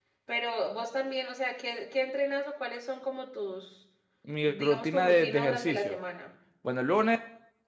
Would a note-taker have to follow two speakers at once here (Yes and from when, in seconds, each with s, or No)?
Yes, from 4.4 s